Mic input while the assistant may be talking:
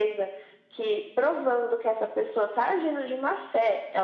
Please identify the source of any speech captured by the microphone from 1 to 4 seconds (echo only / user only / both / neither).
echo only